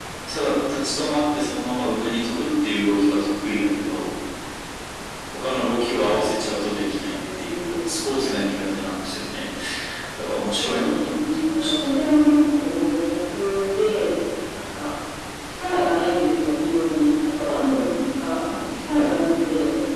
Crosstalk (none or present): present